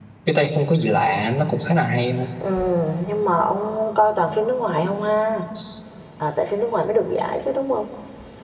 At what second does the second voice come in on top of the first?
none

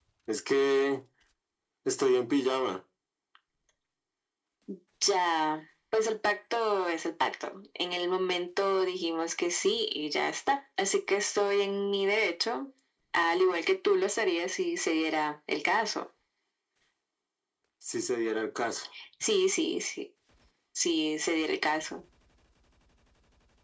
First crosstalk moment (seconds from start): none

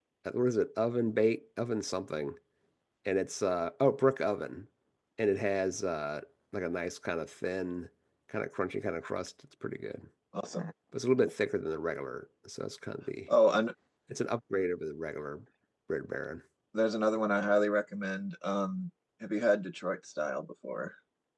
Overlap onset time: none

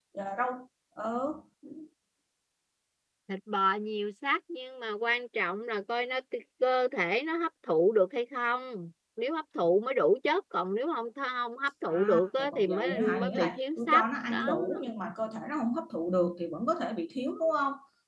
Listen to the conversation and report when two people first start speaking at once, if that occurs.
11.9 s

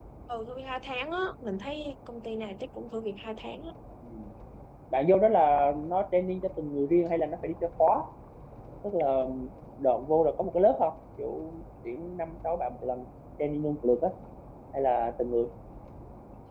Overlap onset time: none

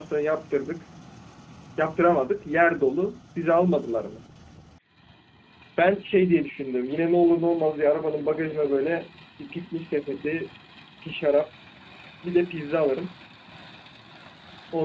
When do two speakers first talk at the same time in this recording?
none

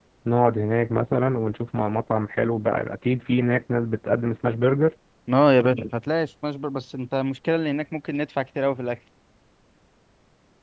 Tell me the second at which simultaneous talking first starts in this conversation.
none

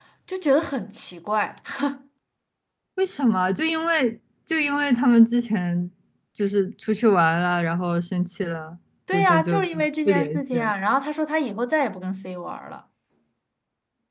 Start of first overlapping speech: 9.1 s

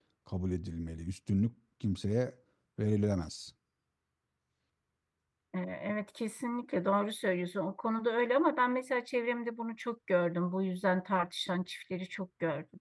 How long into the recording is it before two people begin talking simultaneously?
none

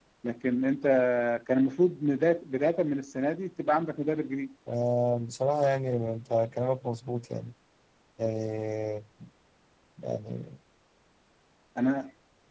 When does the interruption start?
none

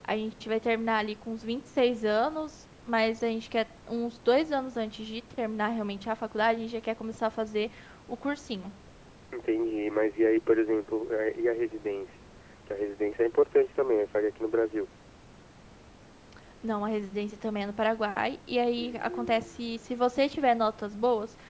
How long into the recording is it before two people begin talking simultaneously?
18.8 s

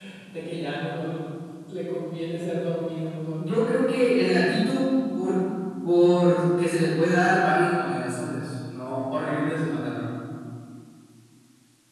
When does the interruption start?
none

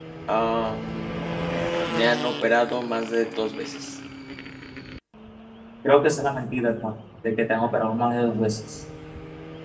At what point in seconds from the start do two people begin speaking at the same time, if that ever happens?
none

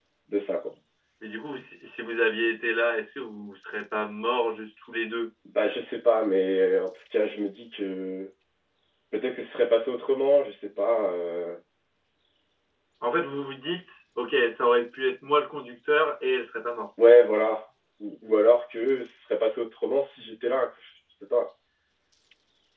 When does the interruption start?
none

